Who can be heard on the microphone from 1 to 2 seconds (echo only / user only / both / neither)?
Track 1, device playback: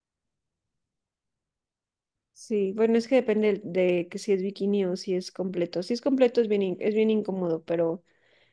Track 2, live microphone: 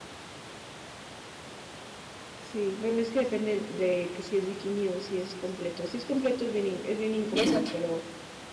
neither